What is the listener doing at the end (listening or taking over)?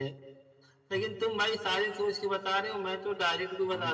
listening